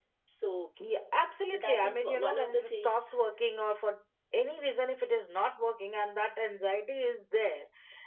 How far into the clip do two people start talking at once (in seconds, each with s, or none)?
1.5 s